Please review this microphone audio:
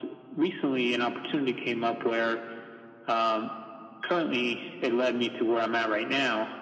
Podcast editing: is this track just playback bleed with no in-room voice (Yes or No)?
Yes